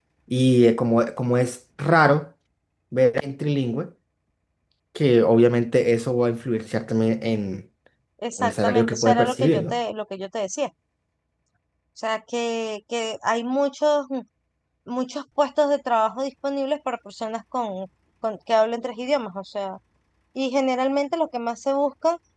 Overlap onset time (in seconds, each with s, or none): 8.4 s